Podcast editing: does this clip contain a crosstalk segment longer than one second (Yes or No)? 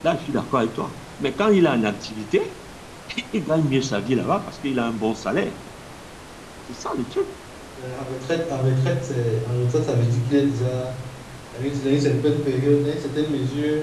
No